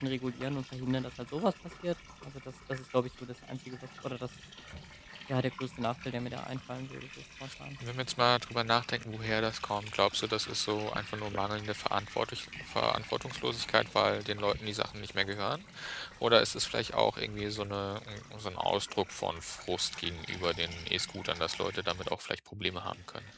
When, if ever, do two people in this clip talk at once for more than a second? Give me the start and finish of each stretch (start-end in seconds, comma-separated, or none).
none